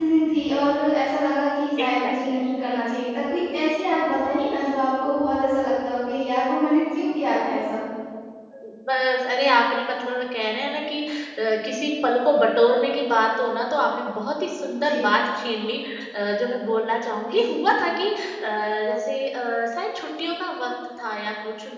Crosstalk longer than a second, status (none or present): none